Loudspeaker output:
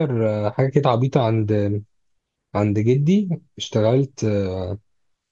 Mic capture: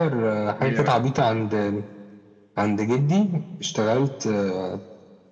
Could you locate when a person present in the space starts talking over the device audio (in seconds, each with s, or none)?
0.6 s